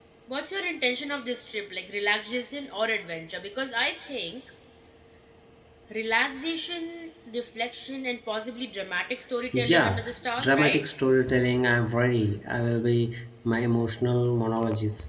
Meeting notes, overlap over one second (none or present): present